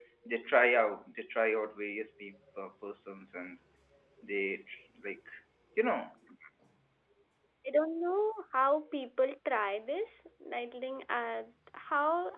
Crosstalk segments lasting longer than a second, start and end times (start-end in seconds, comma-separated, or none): none